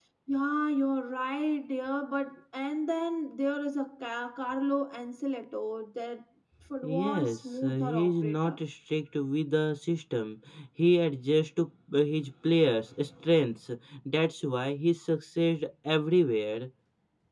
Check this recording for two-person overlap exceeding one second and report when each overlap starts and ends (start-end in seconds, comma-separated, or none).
6.8-8.6